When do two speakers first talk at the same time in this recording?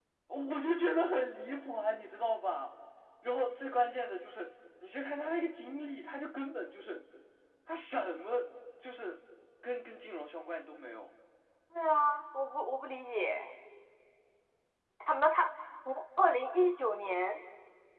none

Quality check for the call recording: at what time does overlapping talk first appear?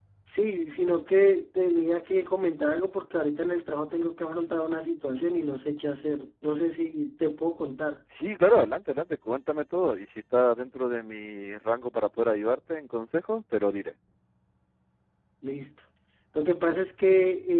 none

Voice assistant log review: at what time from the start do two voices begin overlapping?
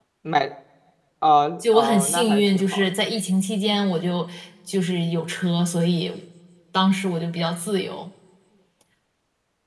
1.7 s

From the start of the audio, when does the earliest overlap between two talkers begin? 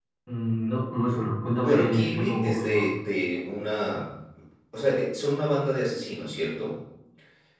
1.3 s

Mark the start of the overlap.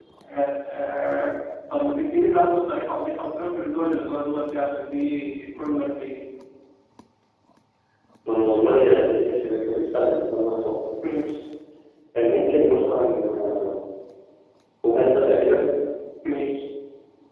none

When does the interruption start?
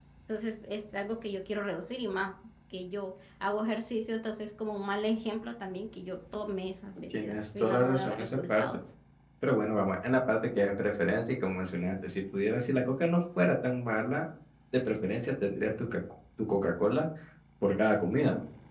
7.1 s

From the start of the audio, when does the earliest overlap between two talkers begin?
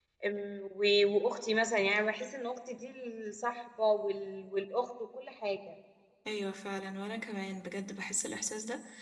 none

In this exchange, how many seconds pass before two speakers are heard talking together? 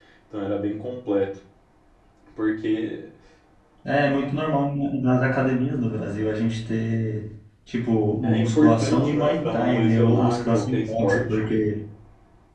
8.2 s

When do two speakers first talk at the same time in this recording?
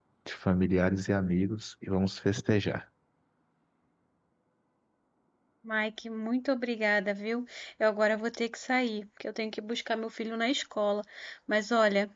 none

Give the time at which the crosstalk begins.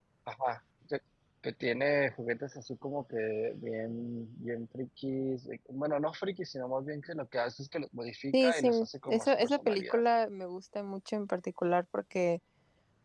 8.3 s

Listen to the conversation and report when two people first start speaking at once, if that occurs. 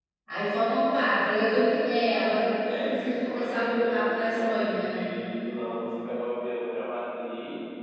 2.6 s

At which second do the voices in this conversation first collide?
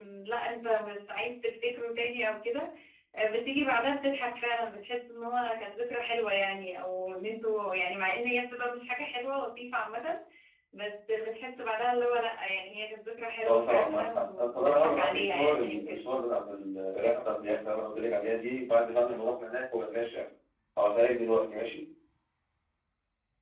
13.4 s

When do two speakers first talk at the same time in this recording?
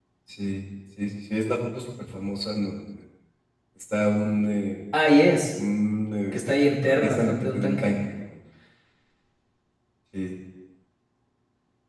6.3 s

